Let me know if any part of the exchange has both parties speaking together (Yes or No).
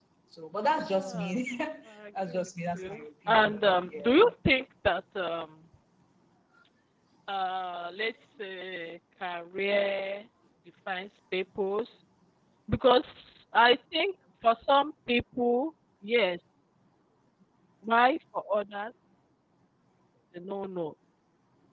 Yes